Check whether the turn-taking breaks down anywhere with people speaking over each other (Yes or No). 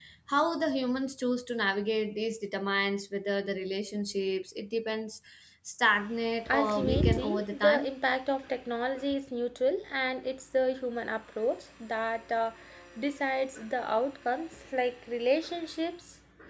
Yes